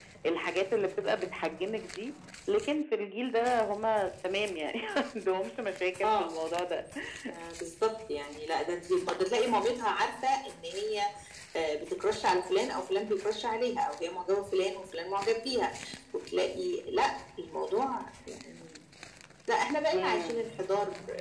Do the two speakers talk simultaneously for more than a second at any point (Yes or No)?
No